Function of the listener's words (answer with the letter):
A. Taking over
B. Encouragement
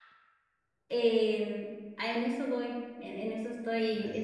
B